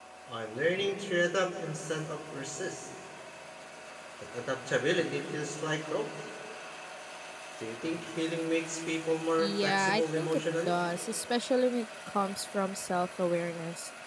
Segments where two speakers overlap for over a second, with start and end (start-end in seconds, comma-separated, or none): 9.4-10.7